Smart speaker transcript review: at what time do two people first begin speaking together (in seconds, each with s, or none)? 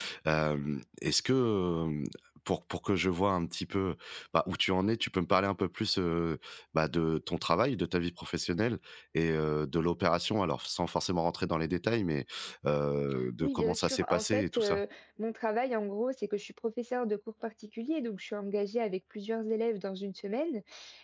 13.4 s